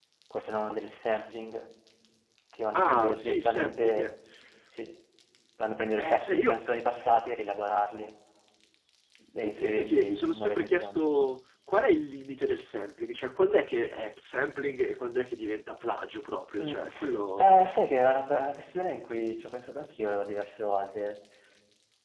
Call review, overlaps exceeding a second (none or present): present